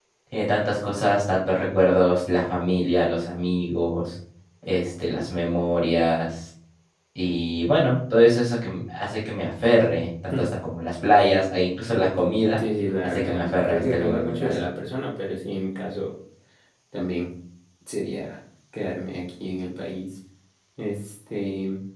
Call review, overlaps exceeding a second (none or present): present